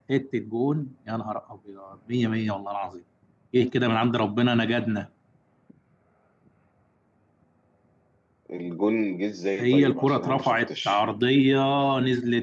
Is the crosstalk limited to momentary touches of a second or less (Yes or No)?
No